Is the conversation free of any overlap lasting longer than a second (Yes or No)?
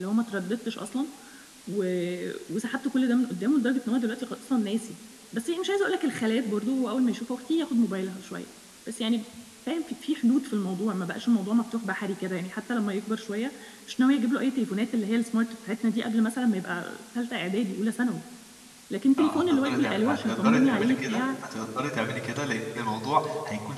No